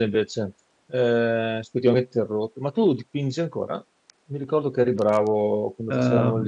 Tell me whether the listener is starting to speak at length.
Yes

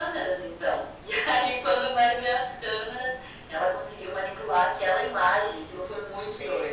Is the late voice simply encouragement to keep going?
No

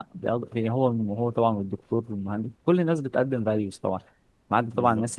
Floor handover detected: No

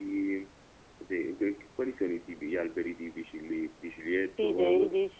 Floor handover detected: Yes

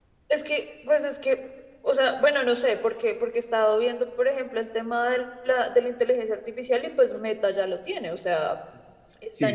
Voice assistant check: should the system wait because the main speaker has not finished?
No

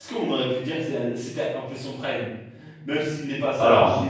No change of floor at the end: Yes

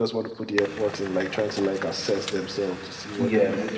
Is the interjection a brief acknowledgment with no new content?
No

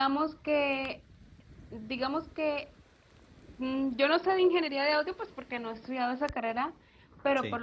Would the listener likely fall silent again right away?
Yes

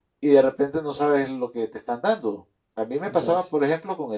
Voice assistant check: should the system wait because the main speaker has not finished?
Yes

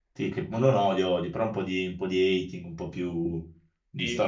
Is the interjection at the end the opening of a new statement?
Yes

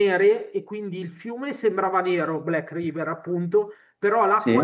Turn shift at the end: No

